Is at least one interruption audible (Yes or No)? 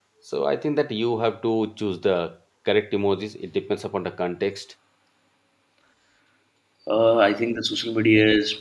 No